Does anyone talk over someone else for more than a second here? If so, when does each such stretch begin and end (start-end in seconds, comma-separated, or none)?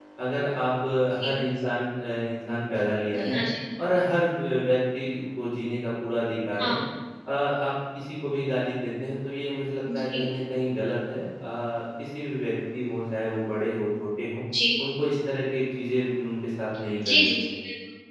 none